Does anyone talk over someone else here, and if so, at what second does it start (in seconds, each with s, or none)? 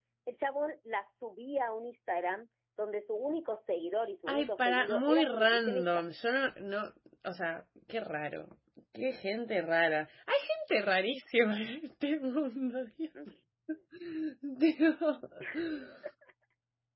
4.3 s